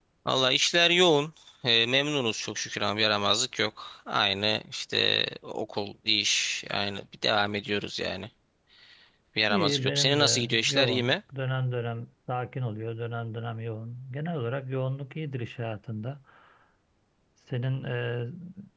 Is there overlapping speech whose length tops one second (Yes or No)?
Yes